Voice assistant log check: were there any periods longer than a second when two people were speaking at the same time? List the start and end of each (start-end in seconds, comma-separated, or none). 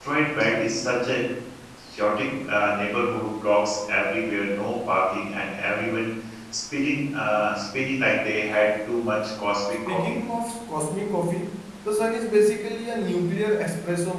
none